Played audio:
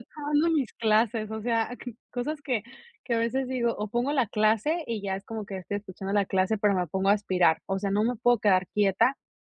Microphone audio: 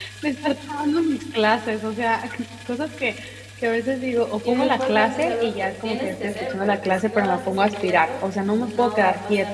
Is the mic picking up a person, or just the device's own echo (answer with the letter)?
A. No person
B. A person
B